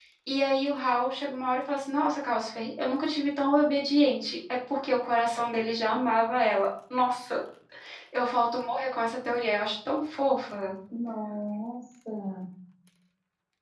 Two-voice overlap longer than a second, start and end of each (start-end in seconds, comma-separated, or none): none